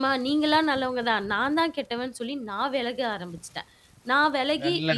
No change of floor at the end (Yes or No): Yes